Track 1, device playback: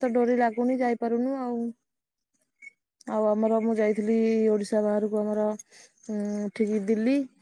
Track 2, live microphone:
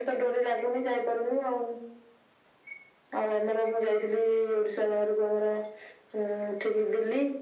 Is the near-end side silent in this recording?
Yes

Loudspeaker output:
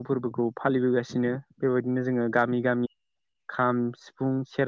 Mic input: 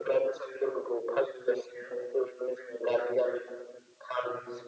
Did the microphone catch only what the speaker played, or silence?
Yes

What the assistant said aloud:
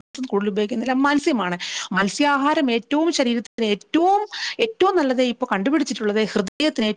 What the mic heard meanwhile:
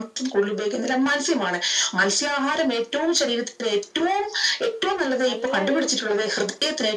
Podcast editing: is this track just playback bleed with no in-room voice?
No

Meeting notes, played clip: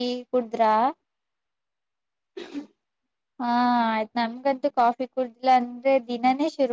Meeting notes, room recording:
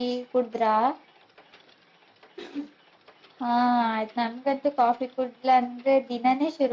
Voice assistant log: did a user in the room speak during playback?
No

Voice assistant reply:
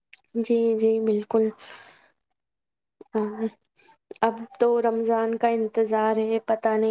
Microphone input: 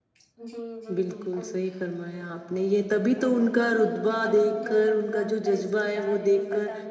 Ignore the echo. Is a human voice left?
Yes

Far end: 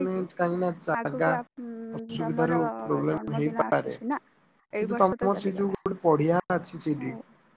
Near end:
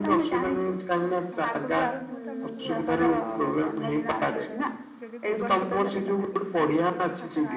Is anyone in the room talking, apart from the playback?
Yes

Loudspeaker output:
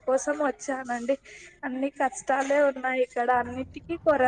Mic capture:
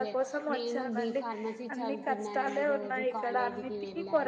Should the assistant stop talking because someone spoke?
Yes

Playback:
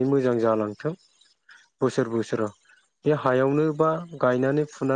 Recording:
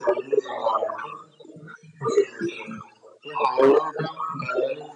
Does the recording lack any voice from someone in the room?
Yes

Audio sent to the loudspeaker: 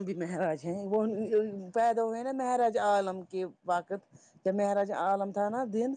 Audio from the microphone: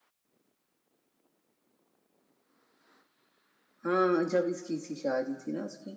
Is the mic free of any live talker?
No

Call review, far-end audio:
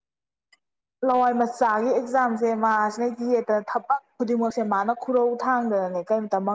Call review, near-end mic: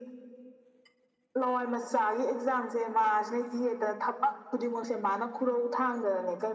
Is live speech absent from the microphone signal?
Yes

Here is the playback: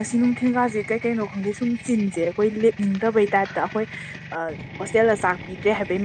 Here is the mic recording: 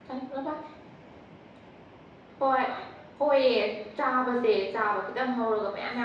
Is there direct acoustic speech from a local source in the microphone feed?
Yes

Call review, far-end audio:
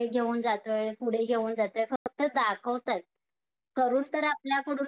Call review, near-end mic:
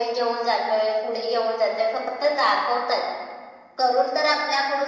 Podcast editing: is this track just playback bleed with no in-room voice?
Yes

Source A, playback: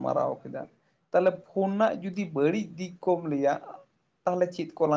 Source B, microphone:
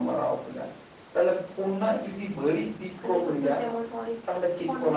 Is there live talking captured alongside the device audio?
Yes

